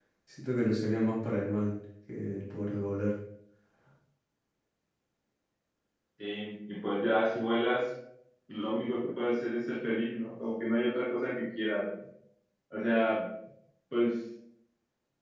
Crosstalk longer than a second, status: none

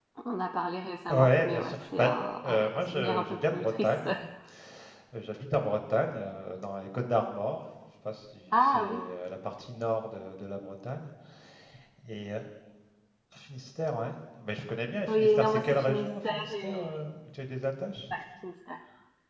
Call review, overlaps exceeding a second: present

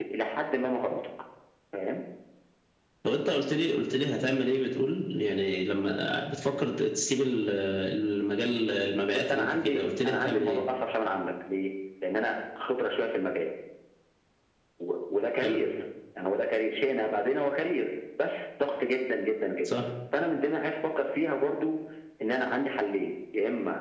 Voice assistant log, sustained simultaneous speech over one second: present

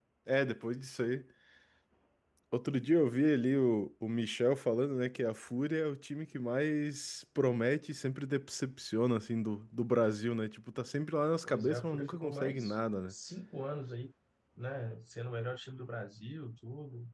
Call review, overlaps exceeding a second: present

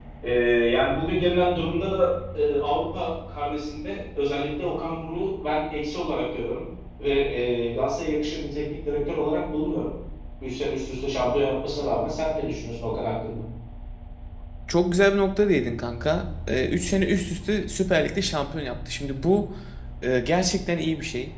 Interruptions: none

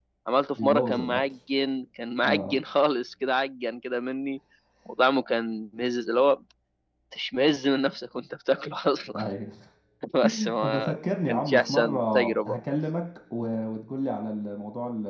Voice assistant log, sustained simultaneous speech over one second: present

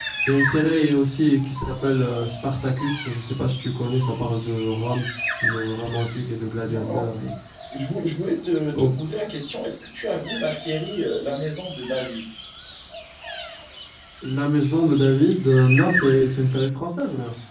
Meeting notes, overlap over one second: none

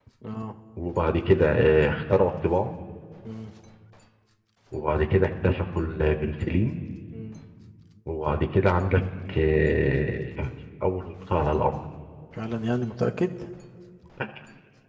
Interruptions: none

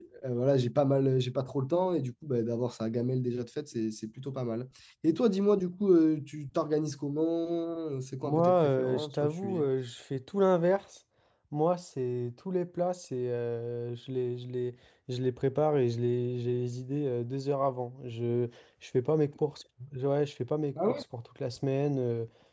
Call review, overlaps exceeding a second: present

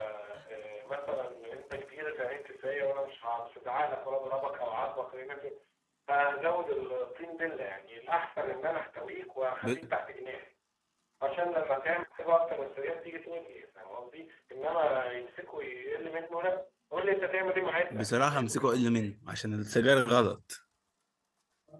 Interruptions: present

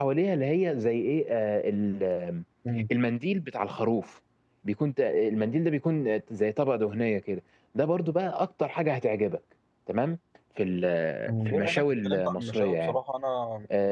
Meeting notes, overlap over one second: present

